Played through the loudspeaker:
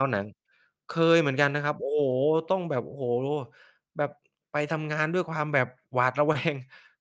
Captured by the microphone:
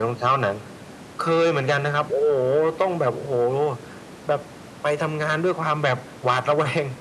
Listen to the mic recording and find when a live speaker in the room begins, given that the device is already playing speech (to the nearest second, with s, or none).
none